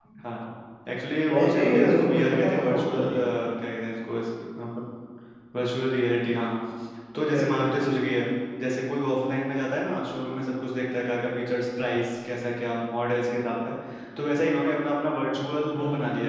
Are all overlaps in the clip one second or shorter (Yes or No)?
No